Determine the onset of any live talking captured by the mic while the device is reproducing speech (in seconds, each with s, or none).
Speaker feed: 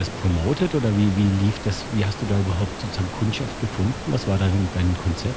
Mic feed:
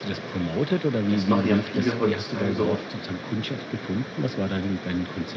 1.1 s